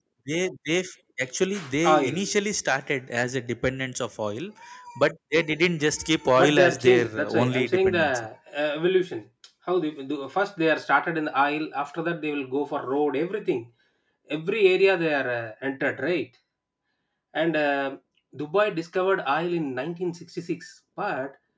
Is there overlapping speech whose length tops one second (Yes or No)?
Yes